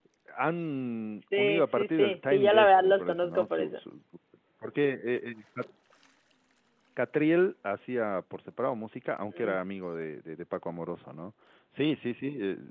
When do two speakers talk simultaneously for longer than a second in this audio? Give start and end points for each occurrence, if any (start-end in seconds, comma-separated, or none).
1.4-3.8